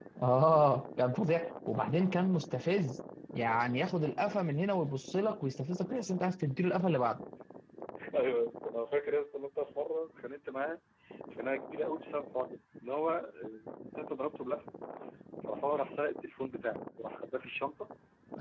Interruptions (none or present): none